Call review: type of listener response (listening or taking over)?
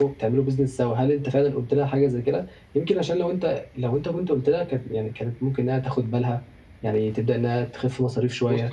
taking over